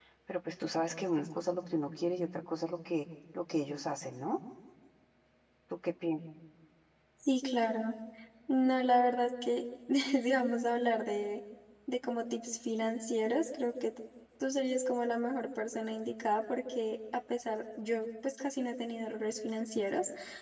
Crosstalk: none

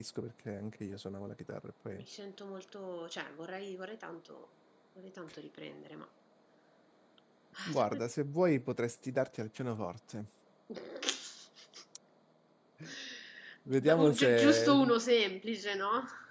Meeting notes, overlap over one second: present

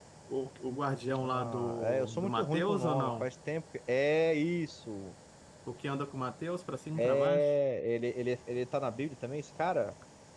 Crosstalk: present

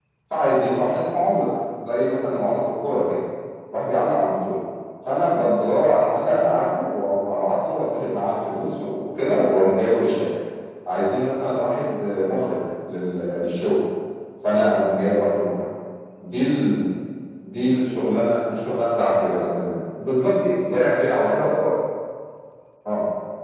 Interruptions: present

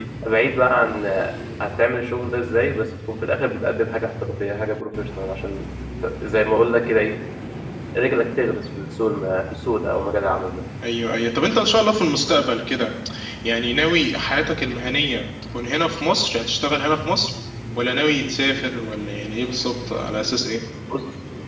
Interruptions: none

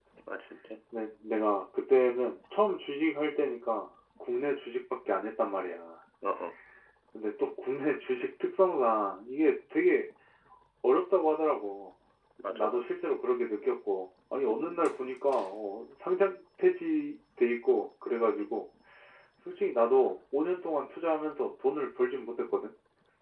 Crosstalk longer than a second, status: none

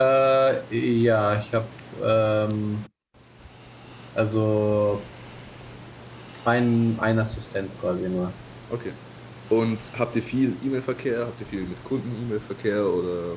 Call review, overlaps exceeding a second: none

